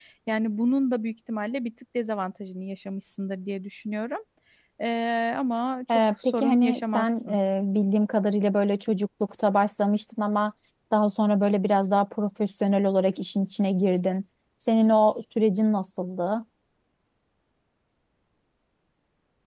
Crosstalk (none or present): present